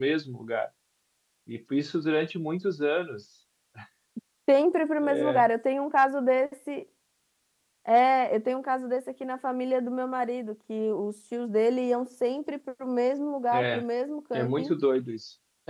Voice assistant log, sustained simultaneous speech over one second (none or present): none